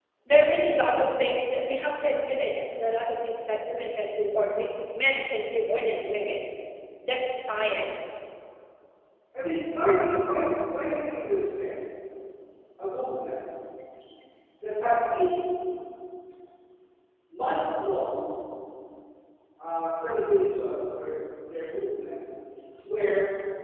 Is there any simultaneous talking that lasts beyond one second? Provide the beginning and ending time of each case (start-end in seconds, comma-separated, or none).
none